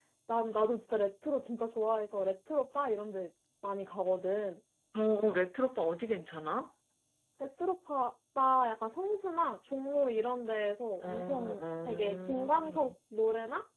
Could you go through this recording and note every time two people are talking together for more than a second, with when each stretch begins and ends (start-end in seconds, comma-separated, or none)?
11.0-12.9